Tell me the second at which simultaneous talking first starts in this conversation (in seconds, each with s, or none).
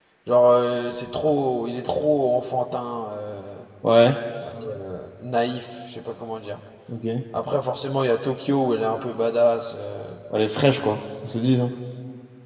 none